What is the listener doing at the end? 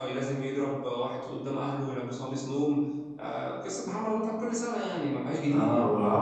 taking over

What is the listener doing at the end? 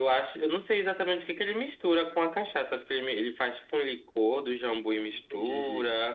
listening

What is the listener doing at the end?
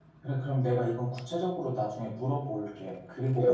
taking over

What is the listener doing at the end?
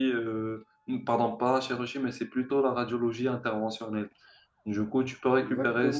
taking over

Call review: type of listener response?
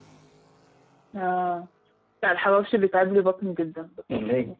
listening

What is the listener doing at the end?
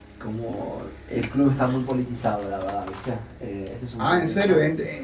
taking over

